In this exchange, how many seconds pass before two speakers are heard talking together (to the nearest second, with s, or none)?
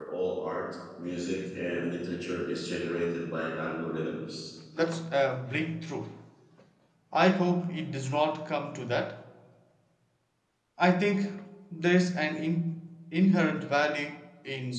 none